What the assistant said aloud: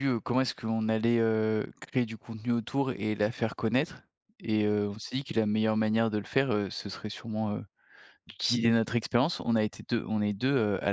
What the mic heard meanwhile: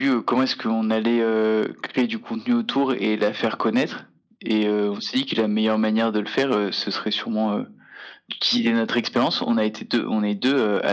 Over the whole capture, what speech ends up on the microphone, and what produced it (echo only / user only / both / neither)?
echo only